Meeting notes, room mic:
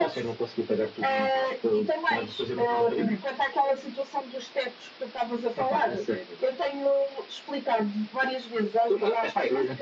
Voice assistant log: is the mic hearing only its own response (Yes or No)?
Yes